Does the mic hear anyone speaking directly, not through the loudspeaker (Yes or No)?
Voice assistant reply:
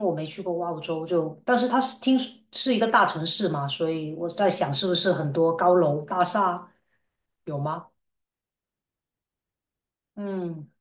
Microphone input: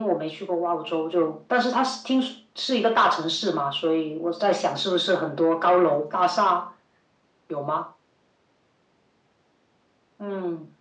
No